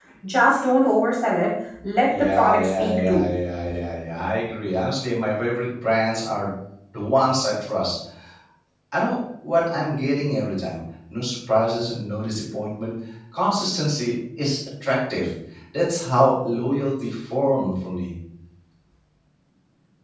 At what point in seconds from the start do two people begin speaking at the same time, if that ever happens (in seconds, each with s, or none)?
2.0 s